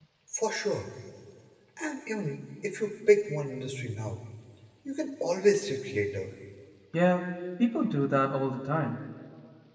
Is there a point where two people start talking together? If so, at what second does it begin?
none

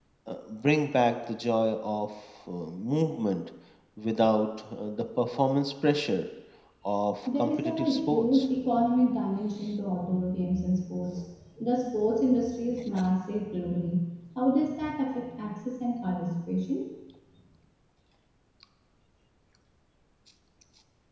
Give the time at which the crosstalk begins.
7.3 s

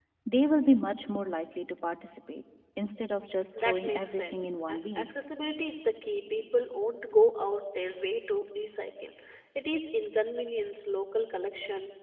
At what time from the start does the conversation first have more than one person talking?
3.6 s

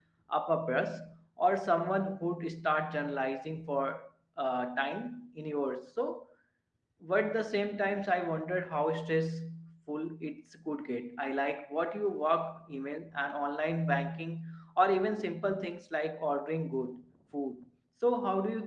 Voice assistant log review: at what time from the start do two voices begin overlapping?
none

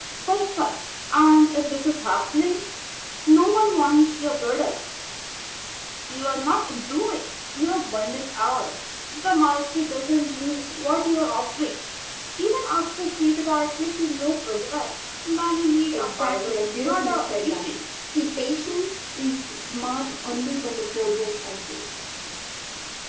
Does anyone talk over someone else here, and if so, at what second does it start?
15.9 s

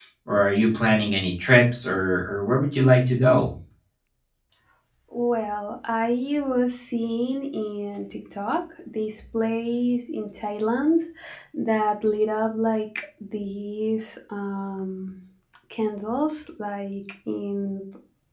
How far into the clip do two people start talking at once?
none

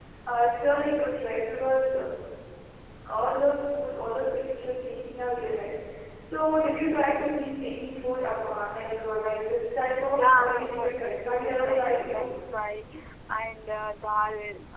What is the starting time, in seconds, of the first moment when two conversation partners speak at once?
10.1 s

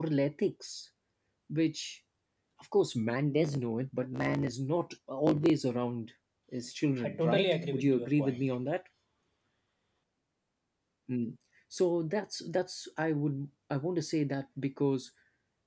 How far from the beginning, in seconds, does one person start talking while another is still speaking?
7.0 s

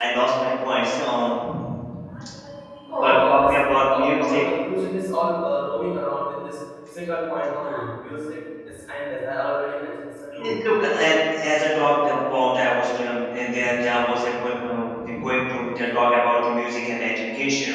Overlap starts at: 2.9 s

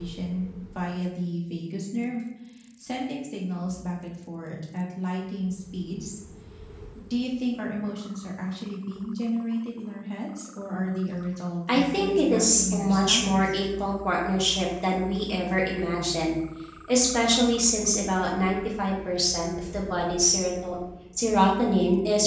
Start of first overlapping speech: 11.7 s

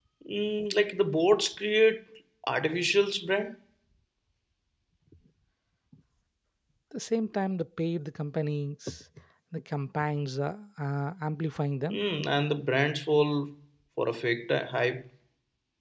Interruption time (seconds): none

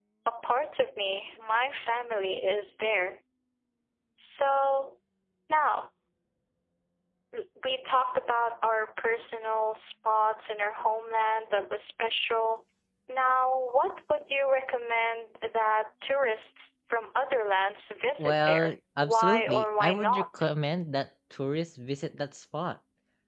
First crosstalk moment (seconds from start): 18.2 s

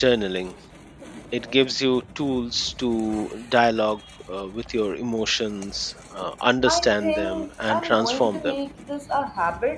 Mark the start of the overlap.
6.7 s

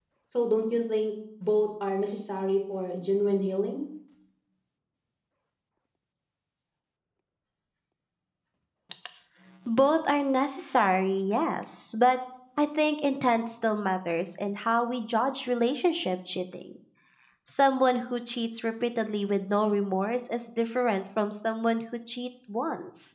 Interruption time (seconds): none

